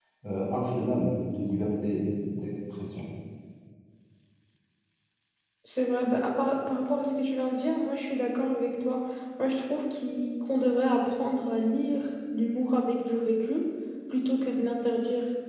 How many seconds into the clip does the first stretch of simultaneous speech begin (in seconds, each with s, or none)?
none